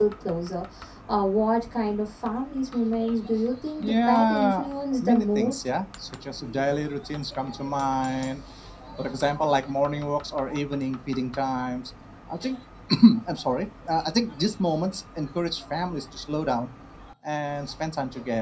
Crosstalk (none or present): present